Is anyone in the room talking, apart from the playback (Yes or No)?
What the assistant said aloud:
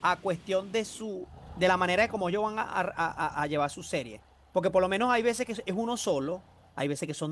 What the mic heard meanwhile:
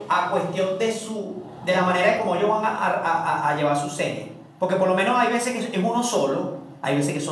No